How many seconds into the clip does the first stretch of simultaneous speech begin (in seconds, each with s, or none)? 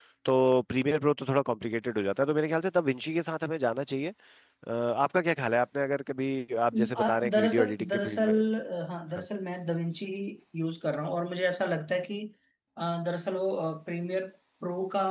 6.7 s